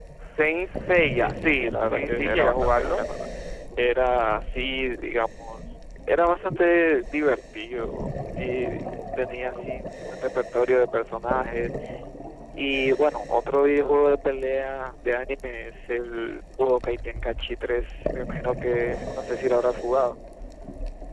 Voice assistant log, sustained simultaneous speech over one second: present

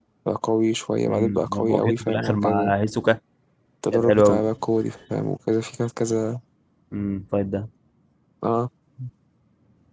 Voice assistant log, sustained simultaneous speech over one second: present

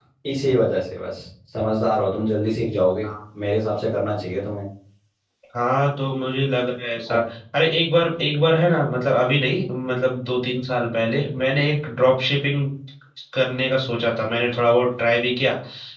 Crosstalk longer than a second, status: none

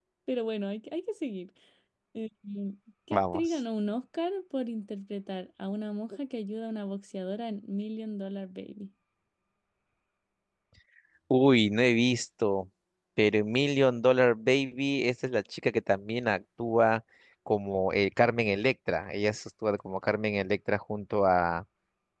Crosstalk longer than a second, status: none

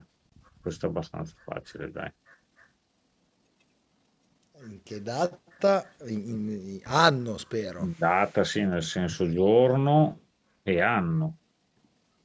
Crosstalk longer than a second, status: none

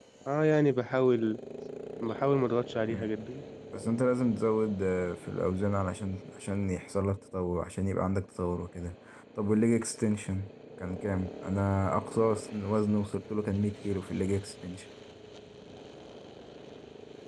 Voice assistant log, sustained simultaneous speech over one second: none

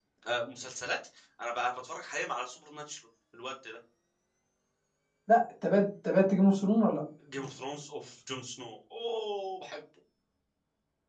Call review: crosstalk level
none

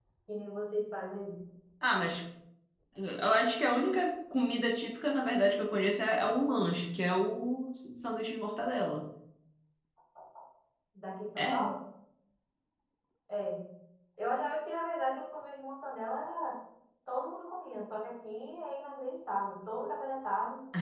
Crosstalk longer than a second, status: none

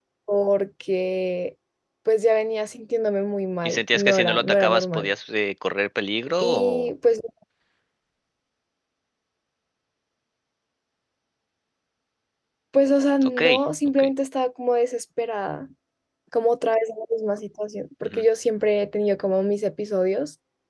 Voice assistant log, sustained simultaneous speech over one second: present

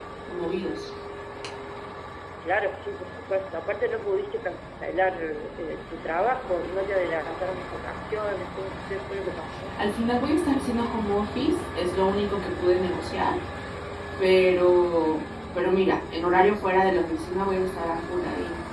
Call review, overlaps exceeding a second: none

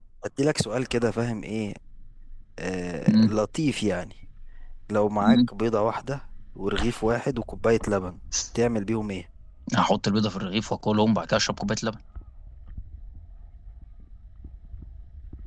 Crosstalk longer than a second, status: none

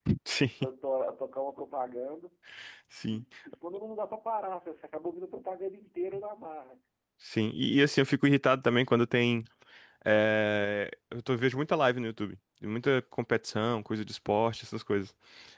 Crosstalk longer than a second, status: none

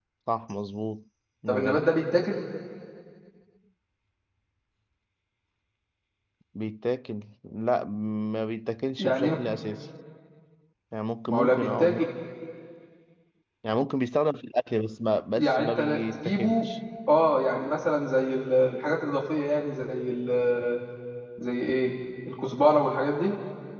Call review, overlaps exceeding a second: present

